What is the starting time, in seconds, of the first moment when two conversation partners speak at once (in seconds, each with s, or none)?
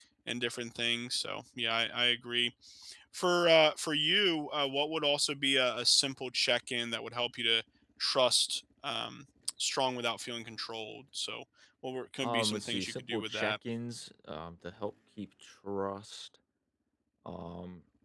12.2 s